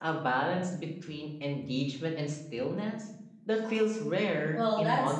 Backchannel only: No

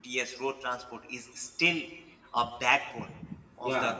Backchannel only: Yes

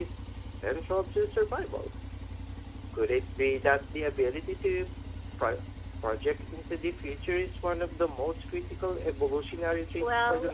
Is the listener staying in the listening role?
No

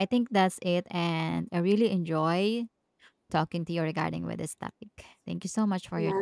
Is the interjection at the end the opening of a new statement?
Yes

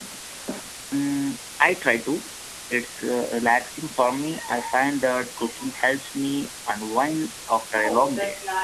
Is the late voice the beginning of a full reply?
Yes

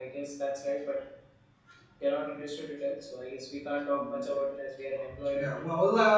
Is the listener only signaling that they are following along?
No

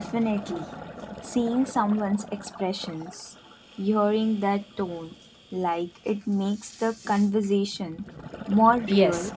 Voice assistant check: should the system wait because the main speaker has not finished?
No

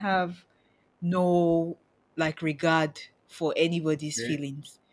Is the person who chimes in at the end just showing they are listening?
Yes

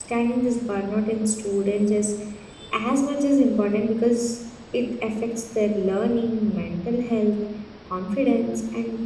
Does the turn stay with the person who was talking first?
Yes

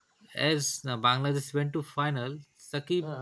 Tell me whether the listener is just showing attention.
Yes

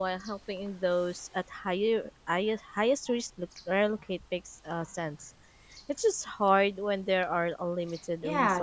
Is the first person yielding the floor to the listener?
Yes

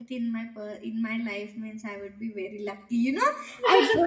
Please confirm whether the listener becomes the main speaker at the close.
No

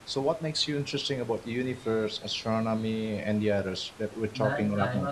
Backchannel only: No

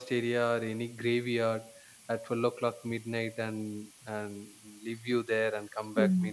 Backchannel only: No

